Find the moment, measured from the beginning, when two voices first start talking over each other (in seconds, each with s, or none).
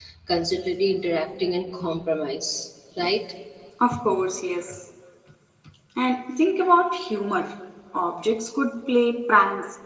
none